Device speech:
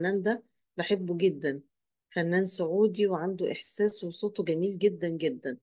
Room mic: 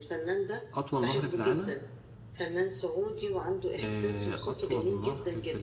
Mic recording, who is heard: both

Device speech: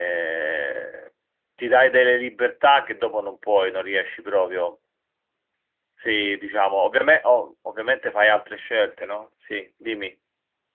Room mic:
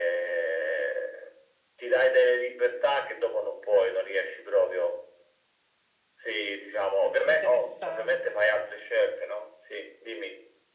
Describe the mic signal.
both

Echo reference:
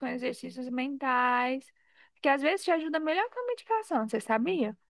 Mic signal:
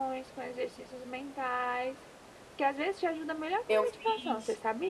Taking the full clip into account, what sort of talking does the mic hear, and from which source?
both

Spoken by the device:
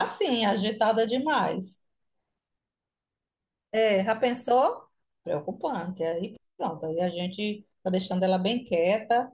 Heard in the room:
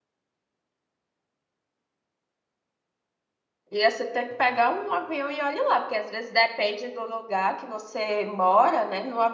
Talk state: user only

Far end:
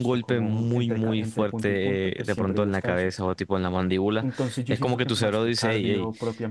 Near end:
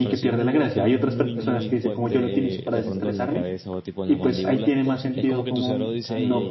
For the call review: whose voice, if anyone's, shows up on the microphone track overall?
both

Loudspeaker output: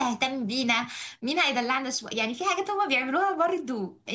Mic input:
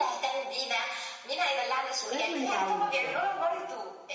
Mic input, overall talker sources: both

